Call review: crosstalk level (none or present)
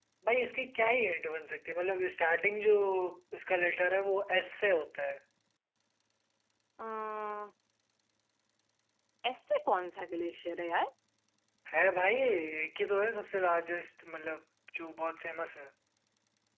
none